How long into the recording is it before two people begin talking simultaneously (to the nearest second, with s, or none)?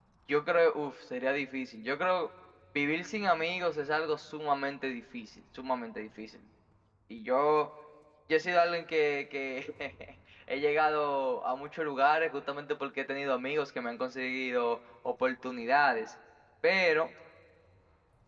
none